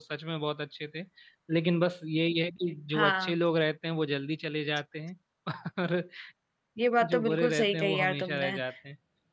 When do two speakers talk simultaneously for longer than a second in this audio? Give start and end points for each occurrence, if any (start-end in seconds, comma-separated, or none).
7.1-8.5